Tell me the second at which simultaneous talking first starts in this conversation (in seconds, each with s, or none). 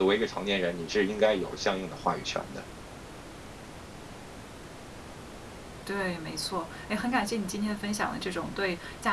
none